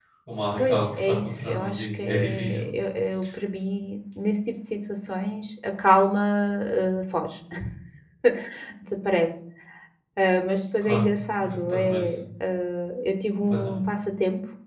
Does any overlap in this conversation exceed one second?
Yes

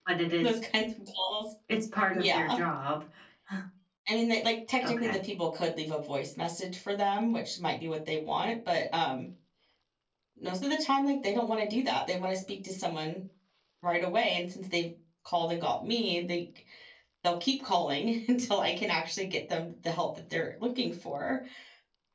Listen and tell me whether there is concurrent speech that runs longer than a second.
No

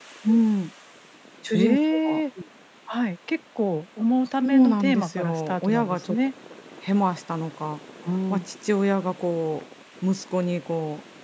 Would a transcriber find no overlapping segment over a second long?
No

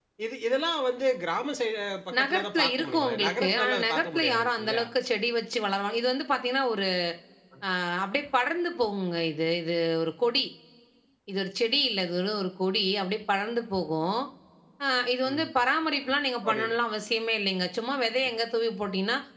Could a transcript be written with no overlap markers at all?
No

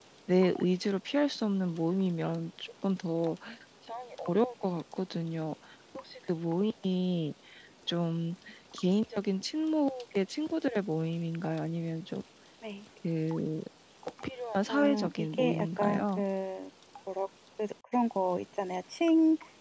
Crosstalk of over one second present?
Yes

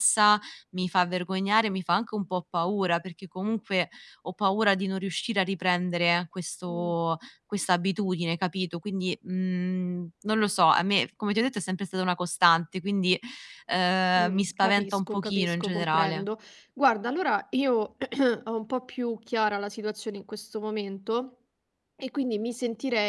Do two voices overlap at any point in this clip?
Yes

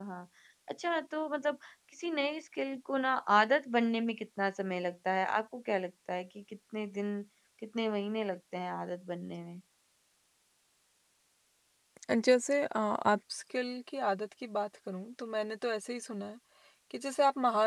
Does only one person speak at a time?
Yes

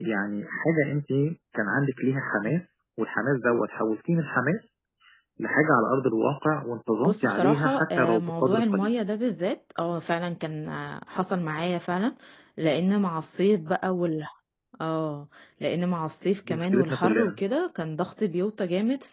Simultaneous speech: Yes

